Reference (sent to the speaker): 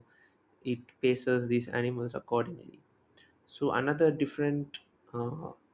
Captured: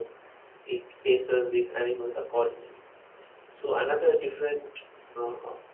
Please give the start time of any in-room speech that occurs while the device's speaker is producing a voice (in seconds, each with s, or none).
none